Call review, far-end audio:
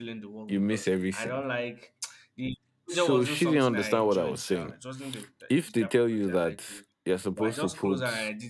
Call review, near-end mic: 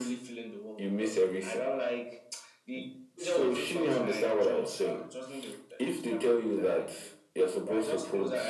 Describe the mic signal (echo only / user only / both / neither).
echo only